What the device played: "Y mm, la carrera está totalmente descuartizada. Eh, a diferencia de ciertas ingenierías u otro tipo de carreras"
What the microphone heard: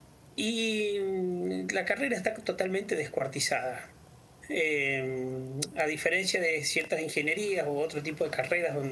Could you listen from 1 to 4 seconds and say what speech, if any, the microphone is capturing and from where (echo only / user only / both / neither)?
echo only